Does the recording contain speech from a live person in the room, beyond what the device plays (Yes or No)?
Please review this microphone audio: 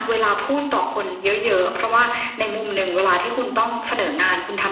No